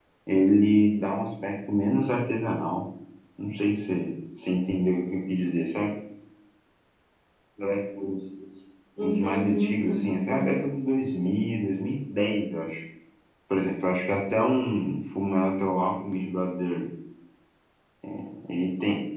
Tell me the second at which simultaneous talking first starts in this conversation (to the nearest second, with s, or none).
9 s